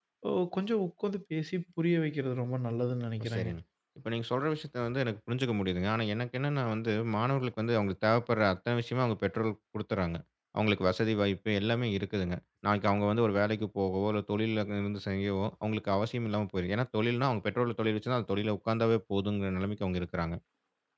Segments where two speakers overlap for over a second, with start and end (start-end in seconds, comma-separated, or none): none